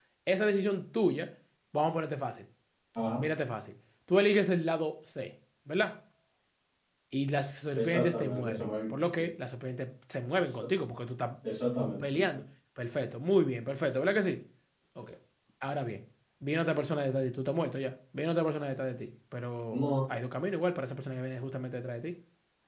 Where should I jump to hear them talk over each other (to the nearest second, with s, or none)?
8 s